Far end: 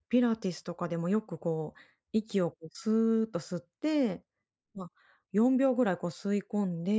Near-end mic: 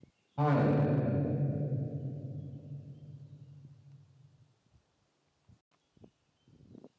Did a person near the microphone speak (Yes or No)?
Yes